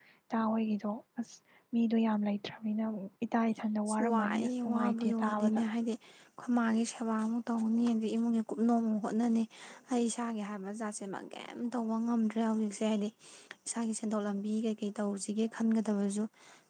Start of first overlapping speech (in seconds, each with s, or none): 4.1 s